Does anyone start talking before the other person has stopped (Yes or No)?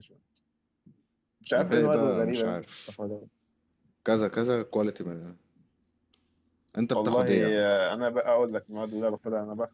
Yes